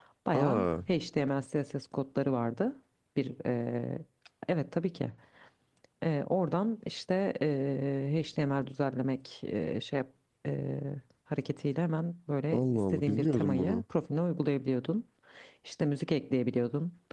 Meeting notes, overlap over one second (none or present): present